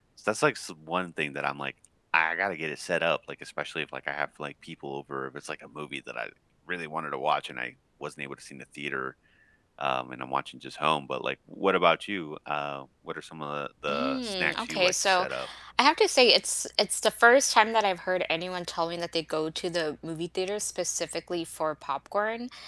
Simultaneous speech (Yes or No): Yes